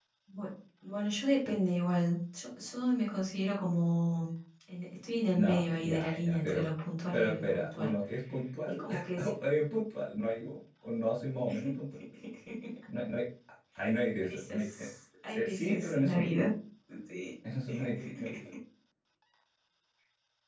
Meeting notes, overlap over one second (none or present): present